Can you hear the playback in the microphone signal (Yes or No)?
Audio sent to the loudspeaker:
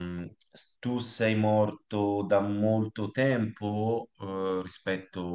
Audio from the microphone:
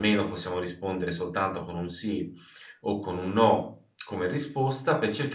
No